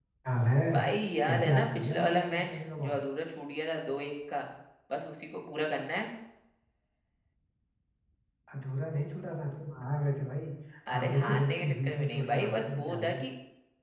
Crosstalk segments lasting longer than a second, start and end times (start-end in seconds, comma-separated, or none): 1.2-3.0, 10.9-13.2